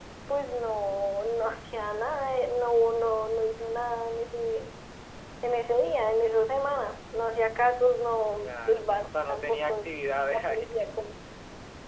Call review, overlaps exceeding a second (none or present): present